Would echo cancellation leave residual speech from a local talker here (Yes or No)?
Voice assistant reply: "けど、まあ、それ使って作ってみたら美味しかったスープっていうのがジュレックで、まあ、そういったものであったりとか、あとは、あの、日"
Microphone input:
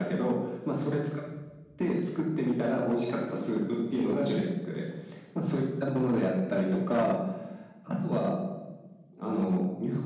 No